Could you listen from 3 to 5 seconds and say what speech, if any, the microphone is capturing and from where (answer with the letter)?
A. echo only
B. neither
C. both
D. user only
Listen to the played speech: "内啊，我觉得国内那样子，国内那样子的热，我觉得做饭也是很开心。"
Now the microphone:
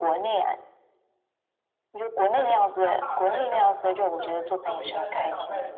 C